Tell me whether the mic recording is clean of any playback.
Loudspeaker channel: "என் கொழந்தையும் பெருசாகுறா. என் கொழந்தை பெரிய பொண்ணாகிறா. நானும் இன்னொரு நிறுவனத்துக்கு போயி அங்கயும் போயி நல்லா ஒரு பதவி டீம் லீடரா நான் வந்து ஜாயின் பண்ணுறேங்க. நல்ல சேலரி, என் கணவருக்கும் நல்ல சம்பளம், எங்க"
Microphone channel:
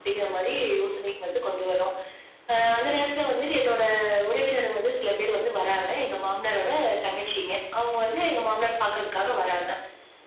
Yes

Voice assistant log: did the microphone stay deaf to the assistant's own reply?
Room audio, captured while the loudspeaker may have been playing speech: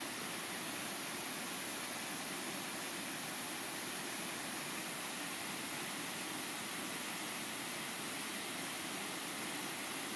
Yes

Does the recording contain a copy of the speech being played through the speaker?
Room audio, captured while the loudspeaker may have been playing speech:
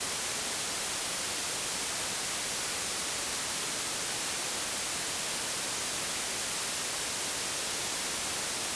No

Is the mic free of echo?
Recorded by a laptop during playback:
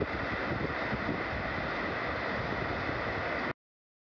Yes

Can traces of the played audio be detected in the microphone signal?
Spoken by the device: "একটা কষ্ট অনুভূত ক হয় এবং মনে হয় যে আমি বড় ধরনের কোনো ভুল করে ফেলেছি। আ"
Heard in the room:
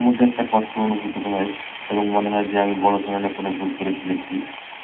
Yes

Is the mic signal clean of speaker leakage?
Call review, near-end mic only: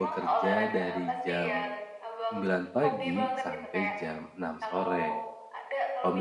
No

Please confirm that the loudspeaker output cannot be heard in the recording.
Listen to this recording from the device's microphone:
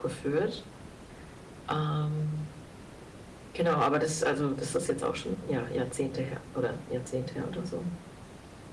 Yes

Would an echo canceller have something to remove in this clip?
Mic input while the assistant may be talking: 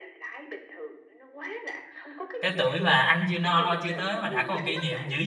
Yes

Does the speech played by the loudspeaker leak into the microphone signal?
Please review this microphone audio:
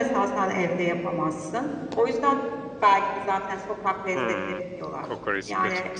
Yes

